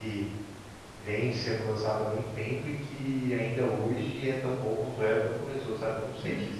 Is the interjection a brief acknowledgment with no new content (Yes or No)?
No